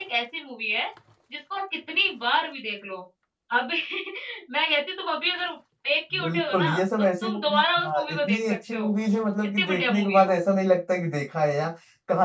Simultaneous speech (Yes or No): Yes